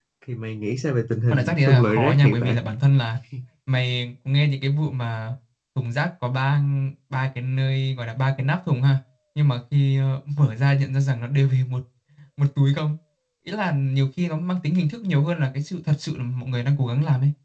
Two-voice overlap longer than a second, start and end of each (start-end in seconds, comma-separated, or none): 1.3-2.6